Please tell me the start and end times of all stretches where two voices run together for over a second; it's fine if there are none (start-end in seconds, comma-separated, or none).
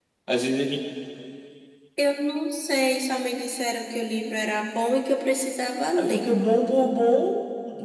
none